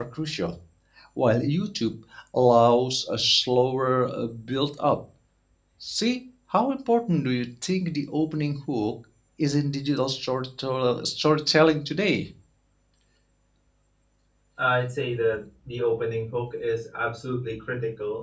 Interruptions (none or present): none